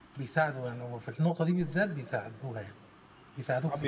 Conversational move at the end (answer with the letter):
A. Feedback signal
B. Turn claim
B